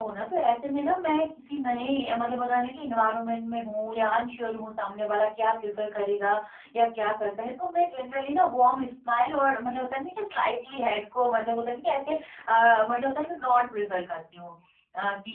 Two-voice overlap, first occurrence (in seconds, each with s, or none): none